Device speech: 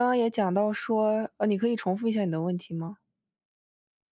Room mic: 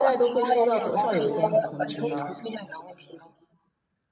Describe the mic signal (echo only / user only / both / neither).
both